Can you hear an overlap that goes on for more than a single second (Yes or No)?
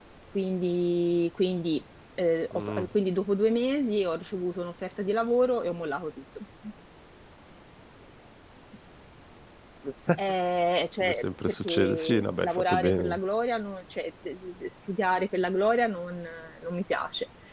Yes